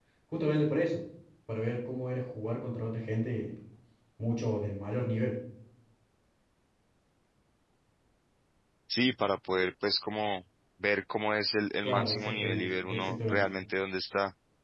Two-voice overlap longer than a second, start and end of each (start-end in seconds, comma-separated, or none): 11.8-13.4